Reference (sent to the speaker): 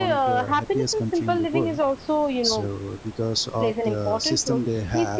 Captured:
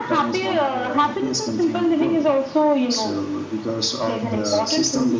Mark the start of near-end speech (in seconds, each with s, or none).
4.2 s